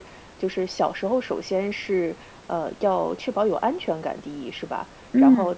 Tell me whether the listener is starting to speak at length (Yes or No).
No